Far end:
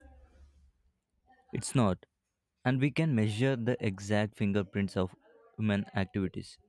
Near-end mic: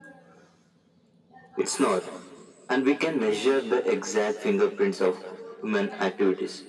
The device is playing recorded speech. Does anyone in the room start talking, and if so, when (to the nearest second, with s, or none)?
none